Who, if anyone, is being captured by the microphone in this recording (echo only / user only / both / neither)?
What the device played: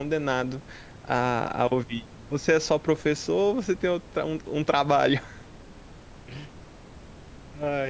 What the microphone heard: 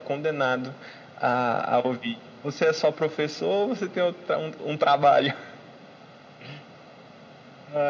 echo only